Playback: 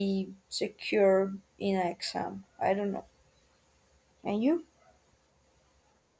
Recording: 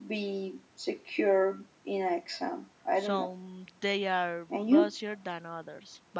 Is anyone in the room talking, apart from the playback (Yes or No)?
Yes